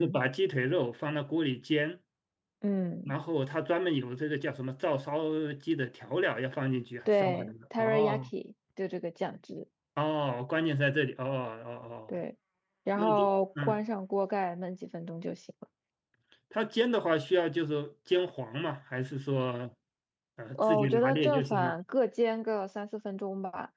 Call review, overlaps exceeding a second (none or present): present